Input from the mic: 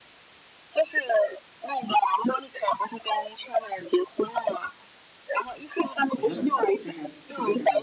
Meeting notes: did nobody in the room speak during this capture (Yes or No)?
No